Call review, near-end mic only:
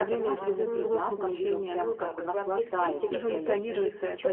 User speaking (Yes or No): Yes